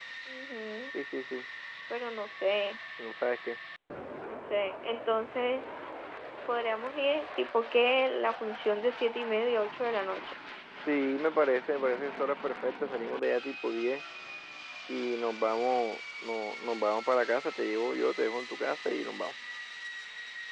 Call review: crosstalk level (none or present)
none